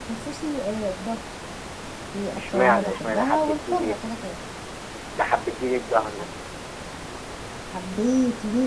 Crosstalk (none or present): present